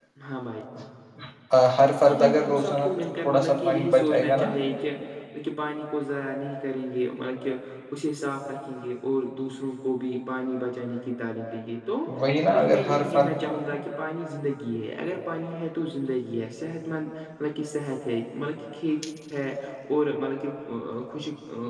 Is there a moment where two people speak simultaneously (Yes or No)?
Yes